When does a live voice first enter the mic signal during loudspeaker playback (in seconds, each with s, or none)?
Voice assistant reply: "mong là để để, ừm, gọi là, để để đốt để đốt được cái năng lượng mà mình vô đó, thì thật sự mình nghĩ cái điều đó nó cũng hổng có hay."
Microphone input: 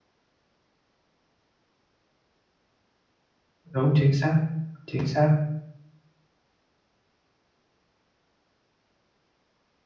3.7 s